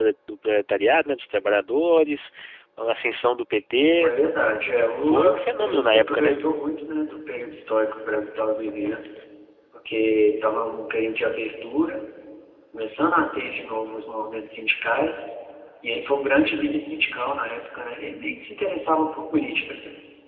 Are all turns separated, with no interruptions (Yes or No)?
No